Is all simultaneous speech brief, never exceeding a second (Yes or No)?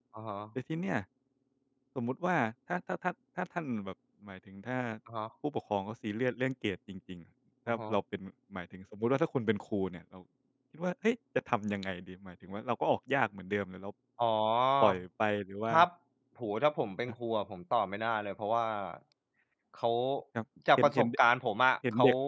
Yes